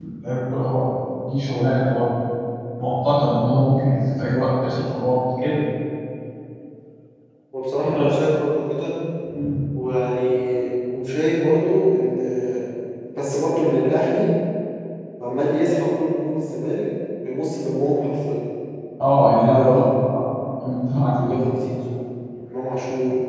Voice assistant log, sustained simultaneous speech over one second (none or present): none